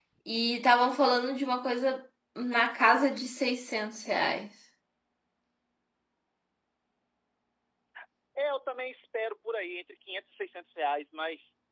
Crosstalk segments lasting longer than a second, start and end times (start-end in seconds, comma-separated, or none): none